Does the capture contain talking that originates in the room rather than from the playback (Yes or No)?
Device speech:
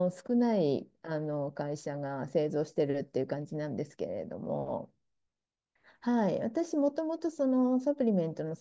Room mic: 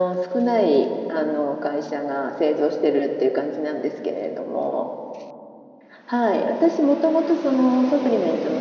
No